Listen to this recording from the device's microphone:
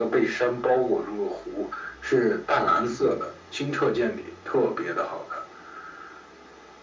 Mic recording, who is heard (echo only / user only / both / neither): echo only